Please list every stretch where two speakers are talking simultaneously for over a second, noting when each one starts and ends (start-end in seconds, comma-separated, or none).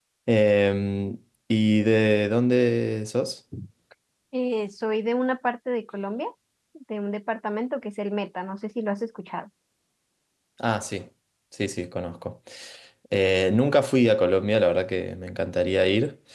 none